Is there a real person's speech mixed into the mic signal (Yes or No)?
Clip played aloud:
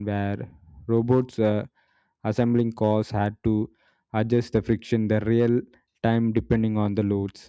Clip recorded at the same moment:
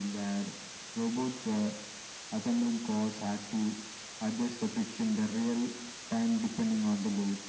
No